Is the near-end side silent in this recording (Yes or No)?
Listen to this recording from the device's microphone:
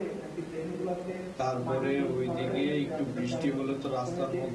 No